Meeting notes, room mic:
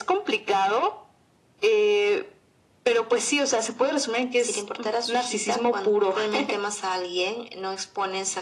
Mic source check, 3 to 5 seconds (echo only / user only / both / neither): echo only